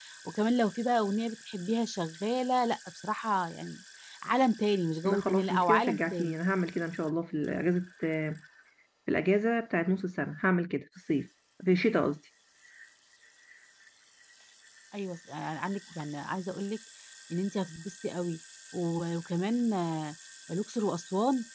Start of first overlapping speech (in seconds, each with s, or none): 5.0 s